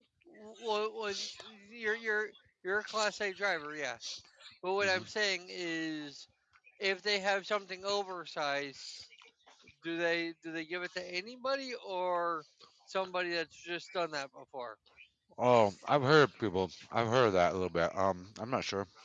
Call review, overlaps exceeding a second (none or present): none